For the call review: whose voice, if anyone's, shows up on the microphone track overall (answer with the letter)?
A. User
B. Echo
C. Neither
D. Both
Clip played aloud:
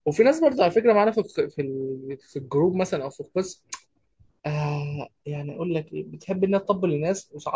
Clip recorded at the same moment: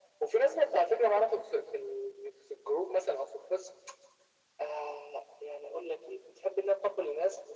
B